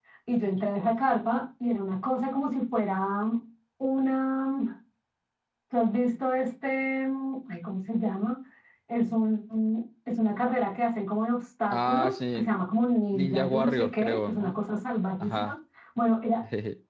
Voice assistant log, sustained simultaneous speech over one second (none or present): present